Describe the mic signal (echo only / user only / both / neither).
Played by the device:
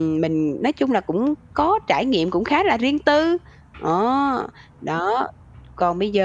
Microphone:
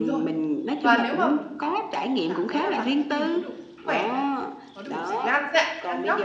both